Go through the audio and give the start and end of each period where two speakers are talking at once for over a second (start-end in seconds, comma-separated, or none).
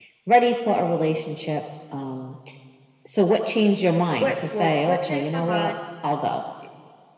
4.2-5.7